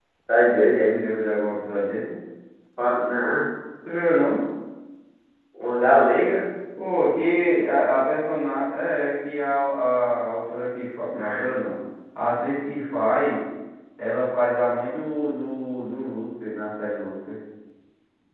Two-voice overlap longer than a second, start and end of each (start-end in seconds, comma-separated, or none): none